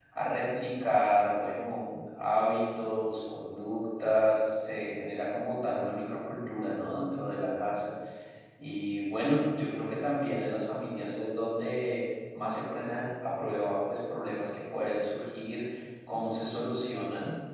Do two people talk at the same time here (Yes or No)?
No